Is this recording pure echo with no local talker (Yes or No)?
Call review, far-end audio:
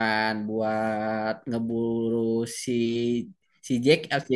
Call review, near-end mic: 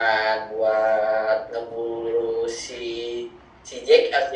Yes